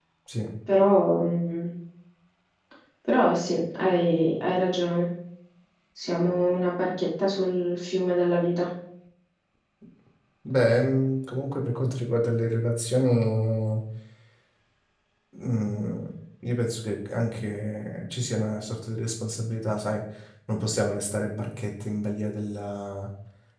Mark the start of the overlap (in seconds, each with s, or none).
none